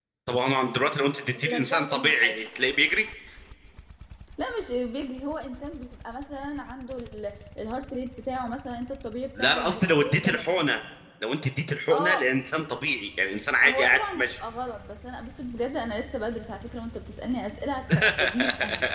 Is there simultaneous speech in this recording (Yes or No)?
Yes